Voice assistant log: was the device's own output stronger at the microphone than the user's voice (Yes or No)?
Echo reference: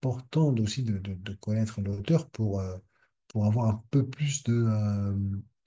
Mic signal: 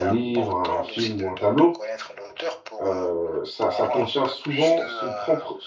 No